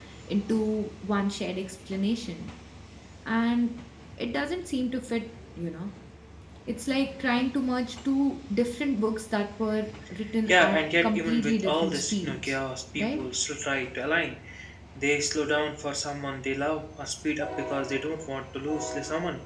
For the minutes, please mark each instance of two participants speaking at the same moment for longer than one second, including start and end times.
10.5-12.6

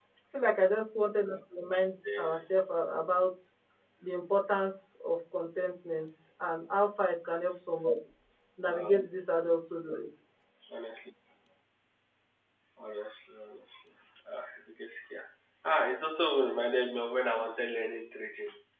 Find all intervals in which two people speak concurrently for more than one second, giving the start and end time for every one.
none

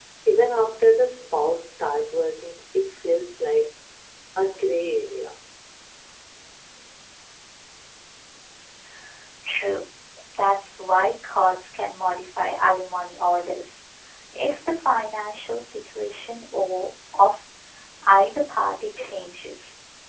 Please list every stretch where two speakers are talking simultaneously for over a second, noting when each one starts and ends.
none

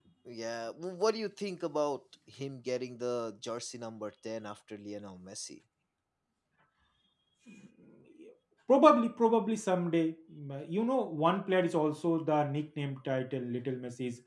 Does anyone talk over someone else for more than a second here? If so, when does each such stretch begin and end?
none

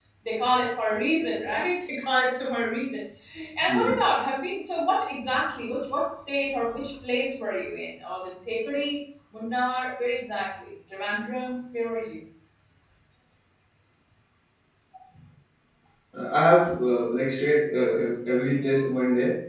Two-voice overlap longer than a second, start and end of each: none

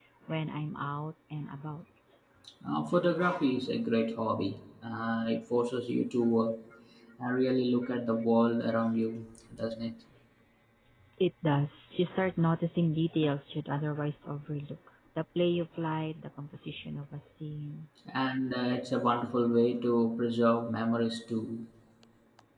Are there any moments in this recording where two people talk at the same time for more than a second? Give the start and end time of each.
none

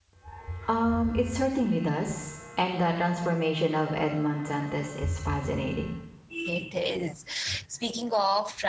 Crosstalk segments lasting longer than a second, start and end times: none

